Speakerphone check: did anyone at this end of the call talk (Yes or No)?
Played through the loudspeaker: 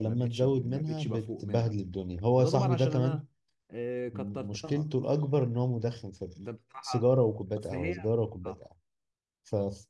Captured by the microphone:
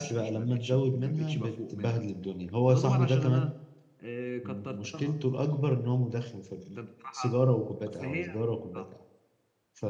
No